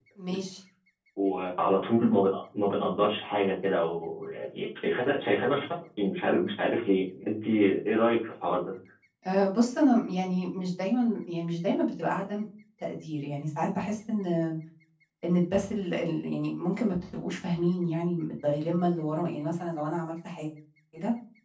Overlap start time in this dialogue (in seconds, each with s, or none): none